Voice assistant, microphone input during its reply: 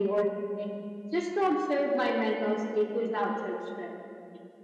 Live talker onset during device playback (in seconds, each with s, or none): none